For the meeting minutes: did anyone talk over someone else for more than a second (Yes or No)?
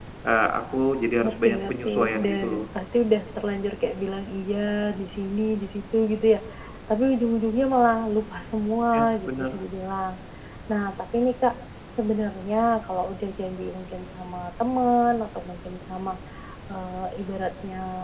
Yes